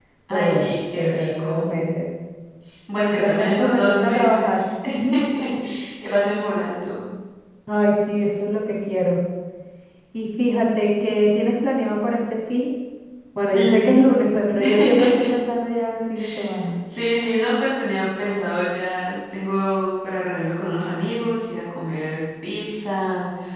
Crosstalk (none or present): present